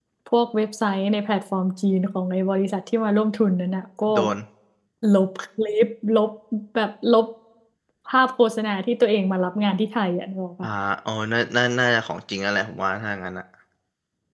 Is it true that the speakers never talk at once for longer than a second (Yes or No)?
Yes